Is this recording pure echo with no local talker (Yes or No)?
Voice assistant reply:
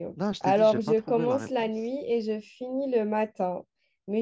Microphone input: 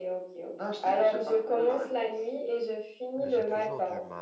No